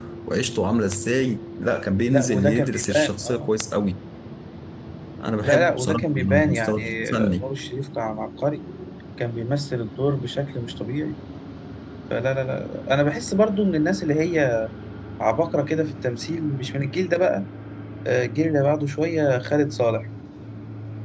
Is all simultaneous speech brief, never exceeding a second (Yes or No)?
No